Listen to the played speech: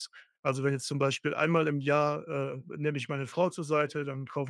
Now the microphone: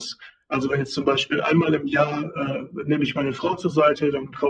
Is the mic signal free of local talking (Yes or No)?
Yes